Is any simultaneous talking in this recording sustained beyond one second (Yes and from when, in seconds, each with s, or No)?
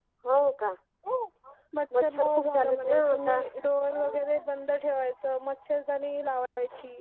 Yes, from 2.0 s